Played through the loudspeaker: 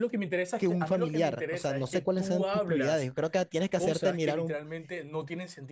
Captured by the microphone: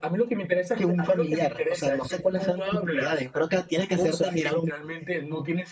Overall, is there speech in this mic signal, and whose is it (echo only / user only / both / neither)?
echo only